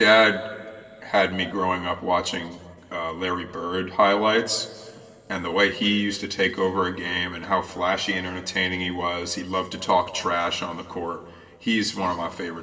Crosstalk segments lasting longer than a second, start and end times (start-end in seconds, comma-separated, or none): none